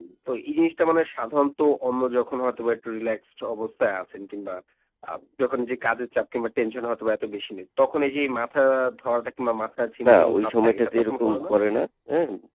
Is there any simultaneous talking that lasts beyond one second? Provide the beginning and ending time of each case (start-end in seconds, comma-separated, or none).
10.1-11.6